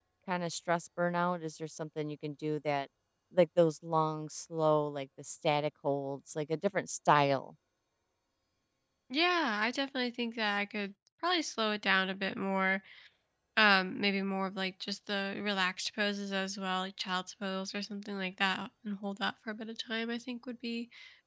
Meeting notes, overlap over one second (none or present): none